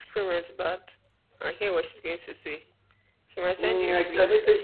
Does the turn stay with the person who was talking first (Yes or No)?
No